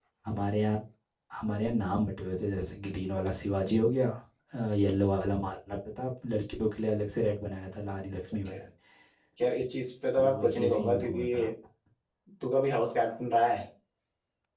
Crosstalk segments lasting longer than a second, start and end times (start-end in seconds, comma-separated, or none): 10.2-11.5